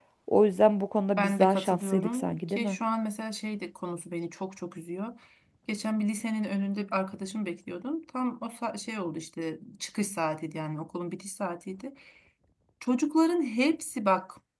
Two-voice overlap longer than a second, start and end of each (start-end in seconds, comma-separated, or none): 1.2-2.8